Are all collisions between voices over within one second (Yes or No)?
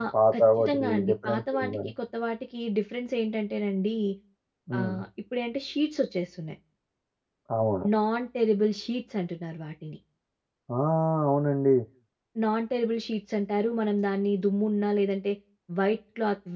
No